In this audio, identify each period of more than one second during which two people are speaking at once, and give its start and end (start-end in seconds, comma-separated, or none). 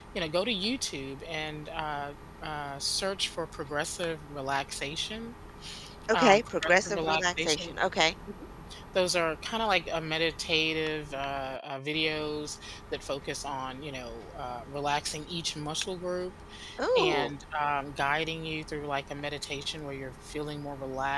6.1-7.7